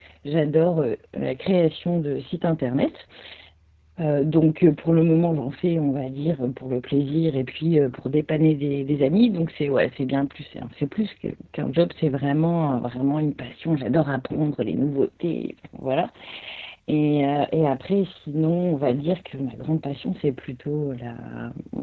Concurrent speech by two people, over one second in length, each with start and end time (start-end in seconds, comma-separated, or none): none